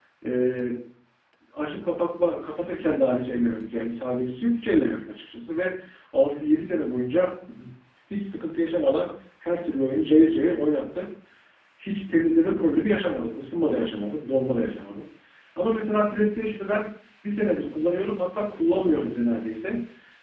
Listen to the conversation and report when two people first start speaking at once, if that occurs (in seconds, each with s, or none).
none